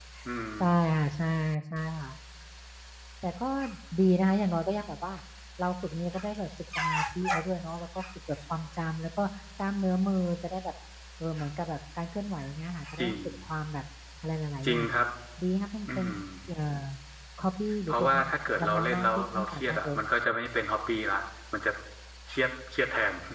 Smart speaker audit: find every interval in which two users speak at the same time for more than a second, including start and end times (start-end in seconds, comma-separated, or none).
17.9-20.0